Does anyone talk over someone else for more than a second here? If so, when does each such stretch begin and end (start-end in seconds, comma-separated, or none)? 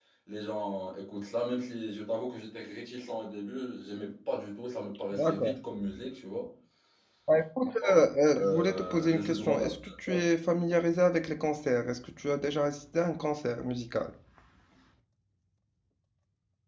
8.3-10.2